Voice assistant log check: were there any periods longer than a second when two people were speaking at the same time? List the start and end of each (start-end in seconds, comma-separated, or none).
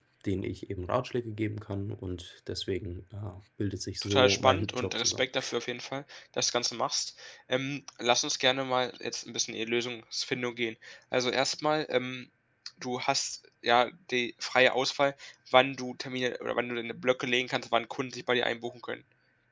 4.0-5.2